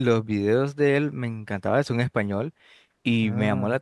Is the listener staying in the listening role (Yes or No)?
Yes